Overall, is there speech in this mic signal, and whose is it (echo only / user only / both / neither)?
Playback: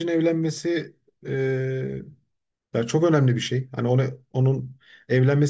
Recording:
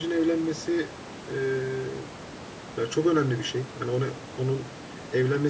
echo only